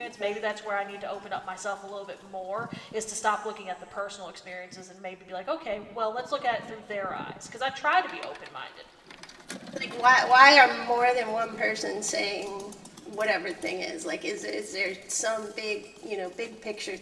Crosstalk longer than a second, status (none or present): none